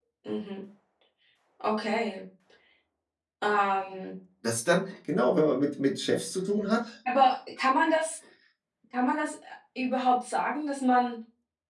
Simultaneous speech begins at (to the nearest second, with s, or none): none